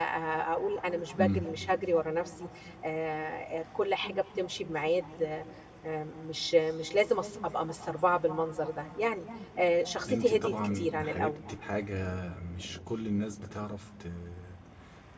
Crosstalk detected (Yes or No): Yes